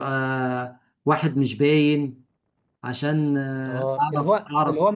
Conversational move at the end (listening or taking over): taking over